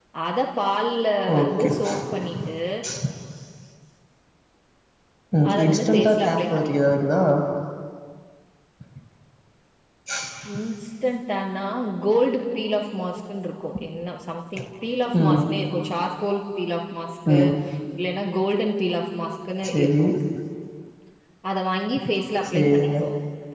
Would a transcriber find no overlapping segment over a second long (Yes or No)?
No